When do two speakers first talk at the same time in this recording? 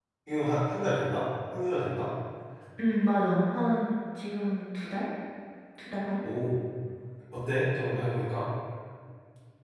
none

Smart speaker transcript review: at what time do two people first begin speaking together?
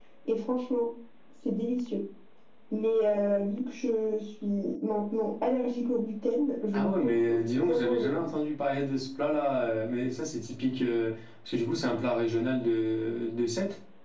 6.7 s

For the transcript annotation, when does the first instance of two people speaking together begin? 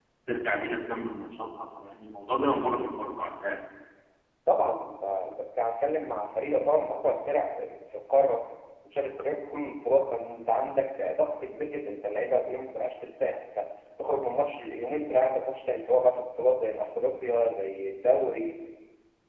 none

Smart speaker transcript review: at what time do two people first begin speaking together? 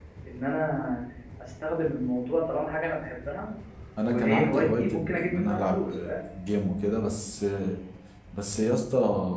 4.0 s

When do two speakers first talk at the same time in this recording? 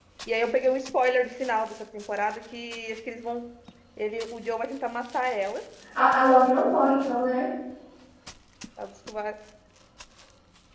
none

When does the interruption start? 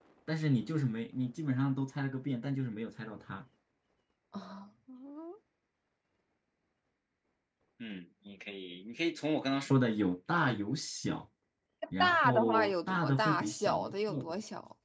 12.0 s

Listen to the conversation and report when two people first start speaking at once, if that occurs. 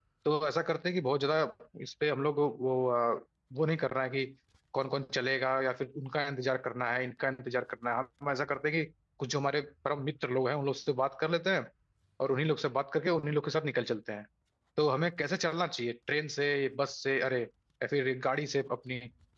none

